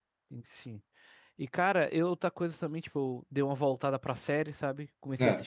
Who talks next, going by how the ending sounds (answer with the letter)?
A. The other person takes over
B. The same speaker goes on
B